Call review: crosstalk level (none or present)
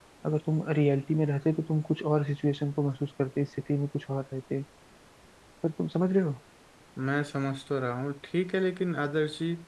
none